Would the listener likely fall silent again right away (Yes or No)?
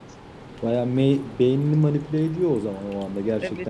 No